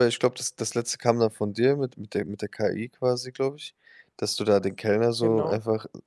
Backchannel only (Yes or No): Yes